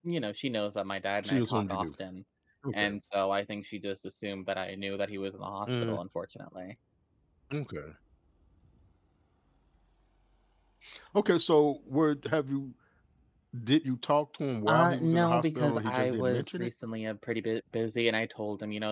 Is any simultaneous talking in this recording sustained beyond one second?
Yes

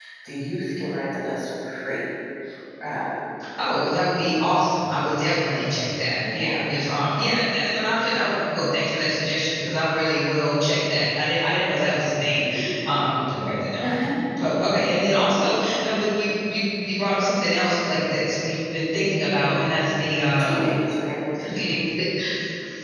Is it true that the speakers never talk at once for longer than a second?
Yes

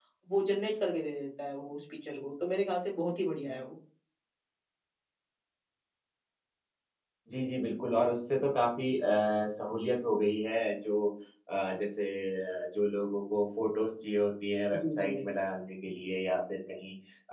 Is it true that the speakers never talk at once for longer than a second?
Yes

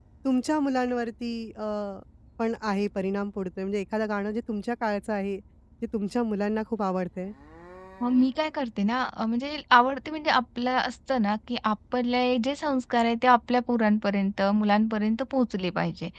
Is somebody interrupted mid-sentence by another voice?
No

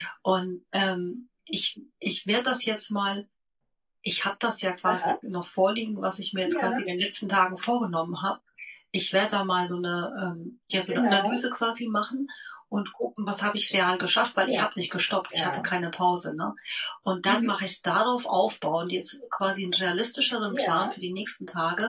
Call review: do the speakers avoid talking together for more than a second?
Yes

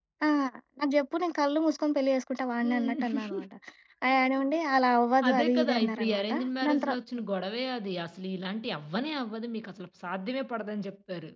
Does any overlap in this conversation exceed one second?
Yes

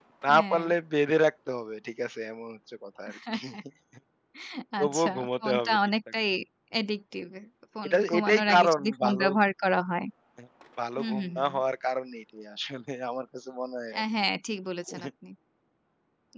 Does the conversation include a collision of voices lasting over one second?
Yes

